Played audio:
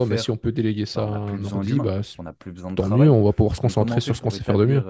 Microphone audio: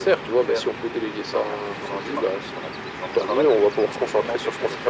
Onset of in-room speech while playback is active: none

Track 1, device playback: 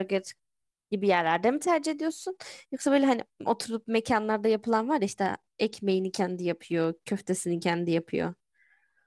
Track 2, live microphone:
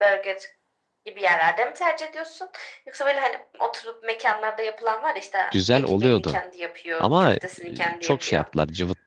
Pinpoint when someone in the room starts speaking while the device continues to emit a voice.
5.5 s

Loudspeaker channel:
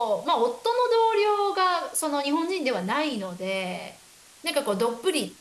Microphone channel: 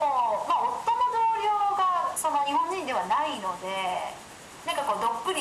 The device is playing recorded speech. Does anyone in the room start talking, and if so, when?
none

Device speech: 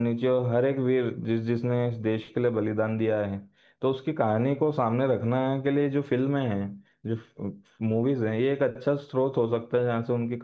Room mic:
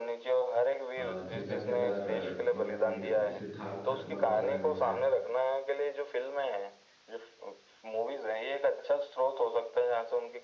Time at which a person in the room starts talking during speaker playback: 1.0 s

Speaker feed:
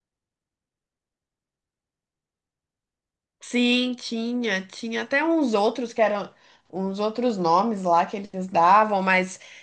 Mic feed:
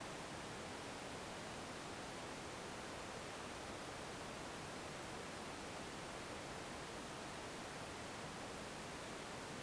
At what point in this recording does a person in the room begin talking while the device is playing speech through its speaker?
none

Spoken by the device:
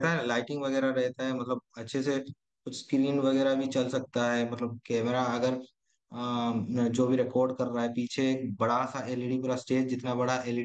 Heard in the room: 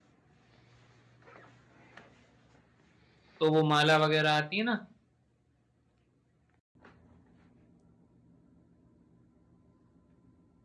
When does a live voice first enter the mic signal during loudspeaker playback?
3.4 s

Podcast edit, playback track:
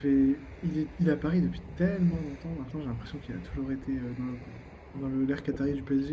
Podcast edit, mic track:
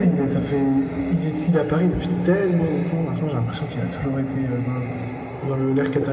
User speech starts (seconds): none

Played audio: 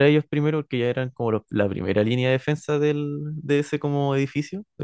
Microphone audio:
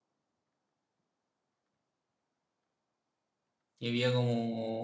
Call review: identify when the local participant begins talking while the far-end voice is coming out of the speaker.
3.8 s

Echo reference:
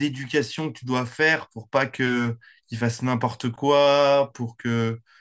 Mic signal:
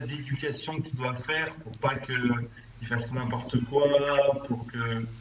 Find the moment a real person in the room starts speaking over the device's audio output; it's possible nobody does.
none

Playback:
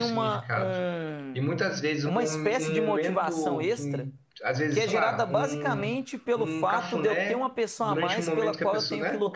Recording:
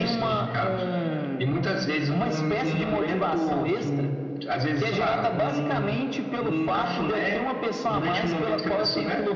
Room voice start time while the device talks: none

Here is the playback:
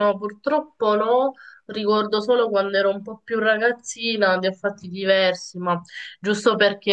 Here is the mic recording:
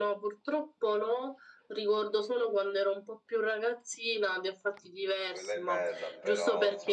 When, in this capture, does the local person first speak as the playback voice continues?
5.2 s

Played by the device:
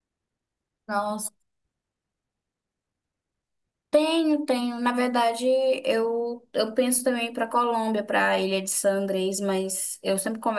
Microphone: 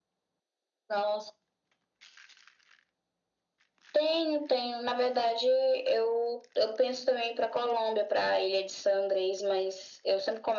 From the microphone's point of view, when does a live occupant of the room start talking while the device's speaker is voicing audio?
none

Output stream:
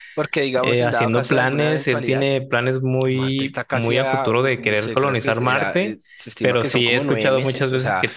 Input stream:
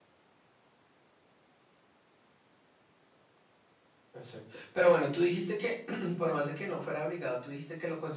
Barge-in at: 4.1 s

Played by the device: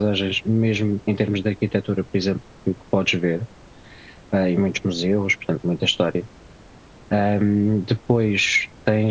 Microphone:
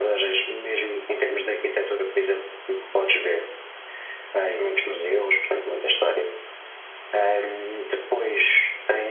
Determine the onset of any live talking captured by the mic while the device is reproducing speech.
none

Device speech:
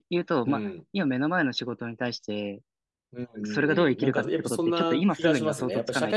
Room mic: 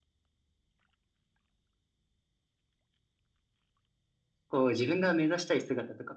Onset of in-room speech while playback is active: 4.5 s

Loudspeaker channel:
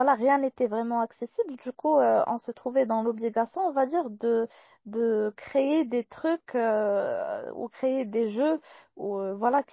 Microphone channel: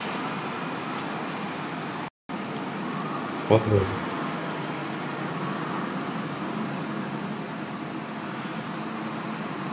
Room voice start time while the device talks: 3.5 s

